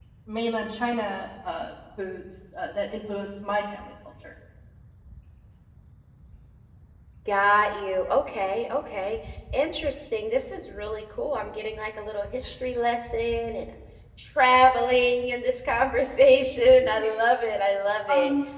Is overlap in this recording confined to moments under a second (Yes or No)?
Yes